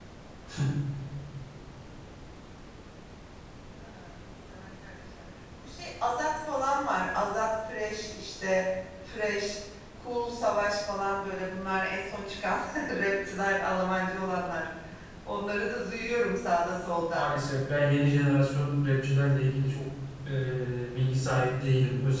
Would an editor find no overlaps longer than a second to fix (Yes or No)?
Yes